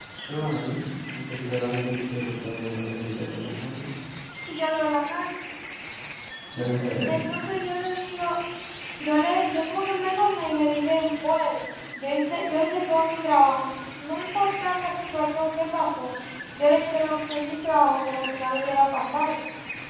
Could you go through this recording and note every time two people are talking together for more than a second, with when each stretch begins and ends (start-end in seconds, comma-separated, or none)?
none